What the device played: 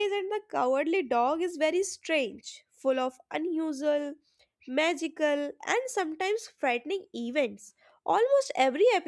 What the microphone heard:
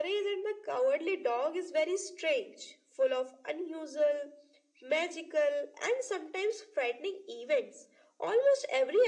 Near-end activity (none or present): none